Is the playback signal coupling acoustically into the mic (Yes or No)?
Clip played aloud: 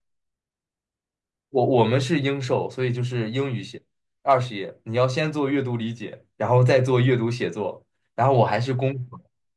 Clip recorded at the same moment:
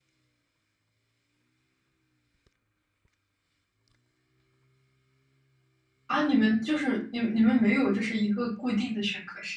No